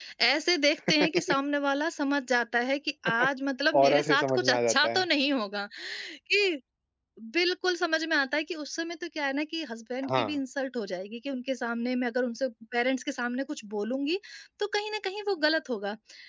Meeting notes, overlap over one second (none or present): present